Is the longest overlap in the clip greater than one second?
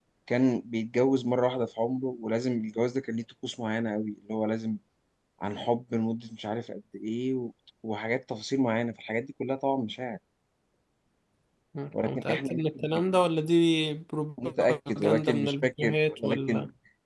Yes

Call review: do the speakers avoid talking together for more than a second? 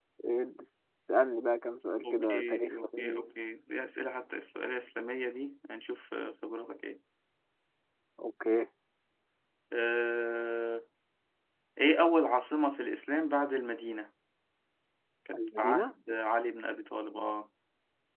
No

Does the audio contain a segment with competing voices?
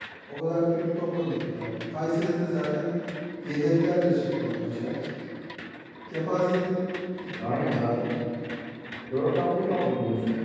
No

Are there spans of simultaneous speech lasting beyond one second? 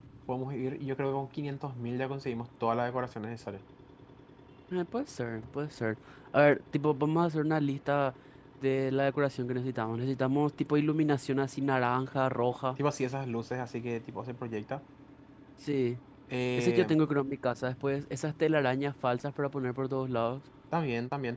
No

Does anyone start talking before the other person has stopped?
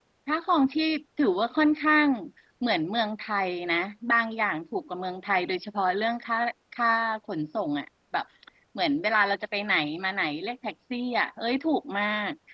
No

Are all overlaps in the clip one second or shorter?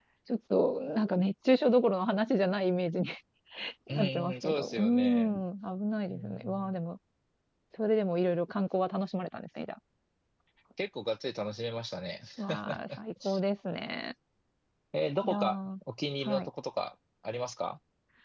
No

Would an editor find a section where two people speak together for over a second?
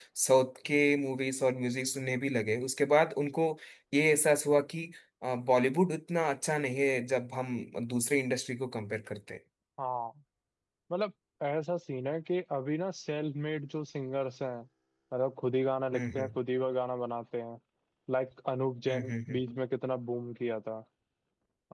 No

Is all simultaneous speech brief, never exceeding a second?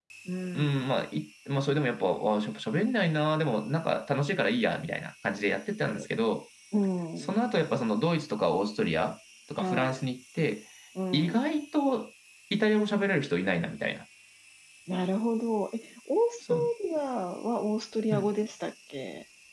Yes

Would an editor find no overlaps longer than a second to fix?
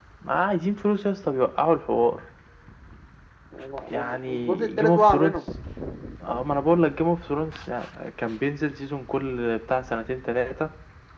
No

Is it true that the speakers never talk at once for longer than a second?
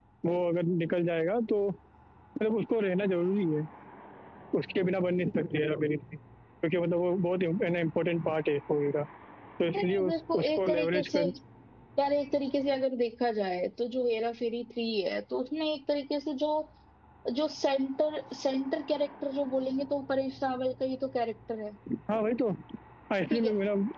No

